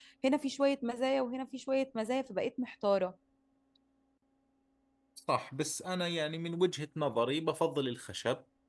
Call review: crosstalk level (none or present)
none